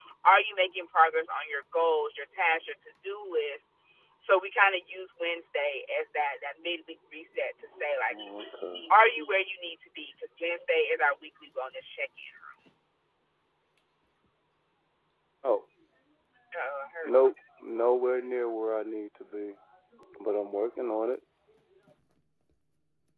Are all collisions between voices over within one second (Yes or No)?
Yes